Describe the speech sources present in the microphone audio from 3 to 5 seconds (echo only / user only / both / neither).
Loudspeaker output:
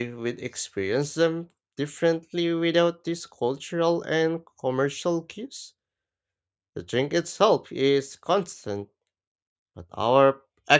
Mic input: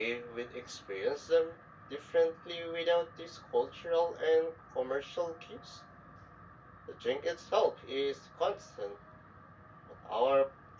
echo only